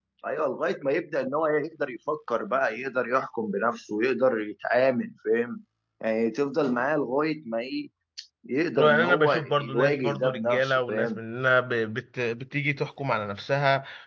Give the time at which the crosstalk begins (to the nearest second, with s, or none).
9 s